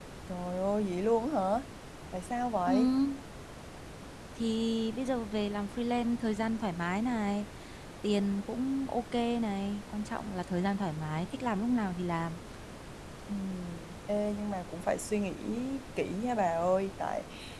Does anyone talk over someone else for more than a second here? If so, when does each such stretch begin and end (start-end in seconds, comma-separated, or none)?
none